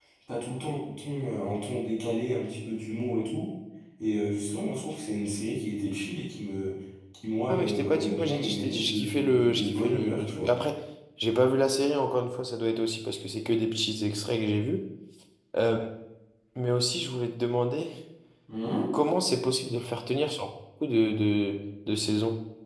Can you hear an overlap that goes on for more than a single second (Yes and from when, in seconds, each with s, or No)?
Yes, from 7.5 s